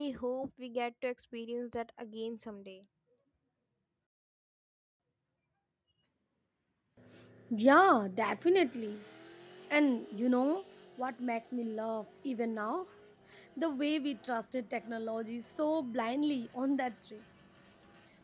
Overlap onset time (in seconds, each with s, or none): none